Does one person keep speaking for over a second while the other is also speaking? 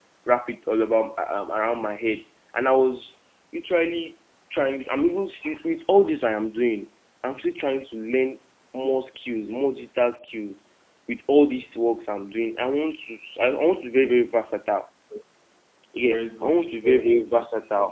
Yes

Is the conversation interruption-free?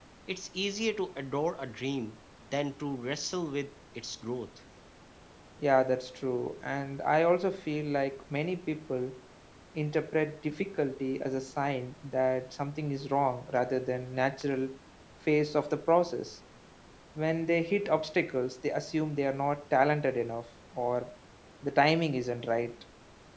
Yes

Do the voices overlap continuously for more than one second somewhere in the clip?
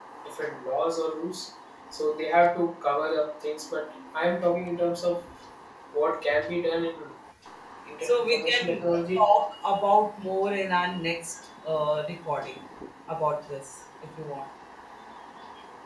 Yes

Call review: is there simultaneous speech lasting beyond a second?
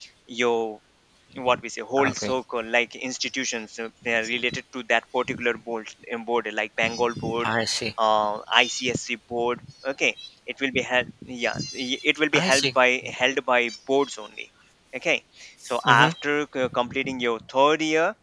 No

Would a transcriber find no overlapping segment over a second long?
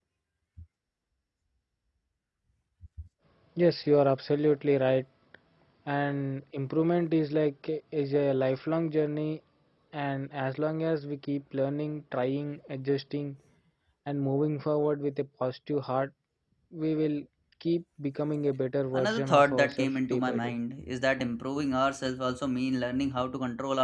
No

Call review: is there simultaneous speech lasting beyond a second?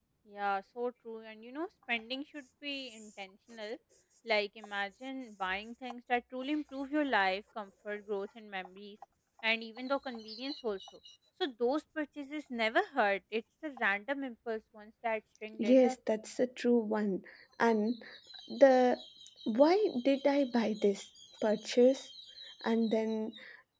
No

